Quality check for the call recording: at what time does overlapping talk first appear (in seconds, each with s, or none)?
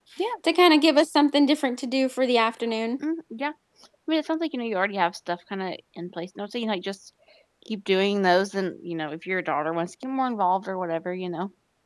none